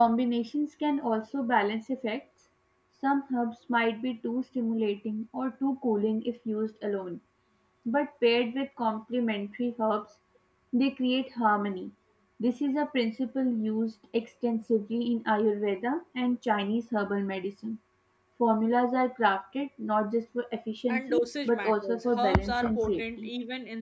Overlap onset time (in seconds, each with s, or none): 20.9 s